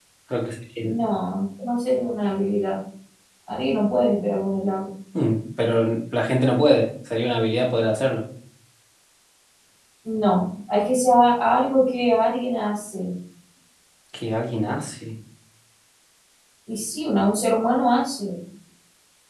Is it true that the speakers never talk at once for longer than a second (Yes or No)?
Yes